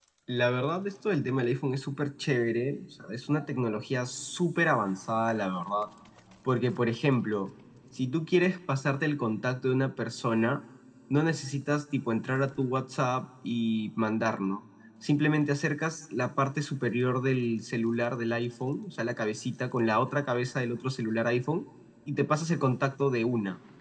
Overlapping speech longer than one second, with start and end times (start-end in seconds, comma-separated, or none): none